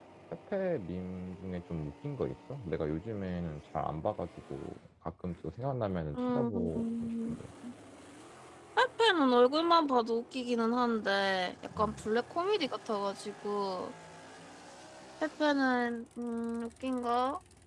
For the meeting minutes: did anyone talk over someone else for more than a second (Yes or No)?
Yes